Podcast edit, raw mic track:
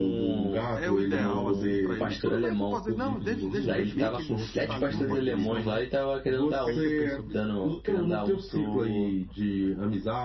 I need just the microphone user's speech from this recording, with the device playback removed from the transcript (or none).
é o ideal, assim, para eles. Tudo bem que pode dizer, não, desde, desde bebê que ele está ali, ele não pode ir para a selva, né? O que é que você pensa sobre isso? aí?